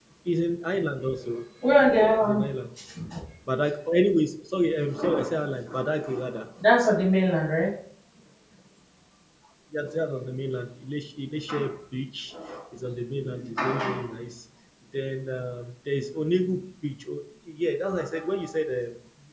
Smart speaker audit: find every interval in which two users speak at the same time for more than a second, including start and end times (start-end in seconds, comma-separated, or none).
none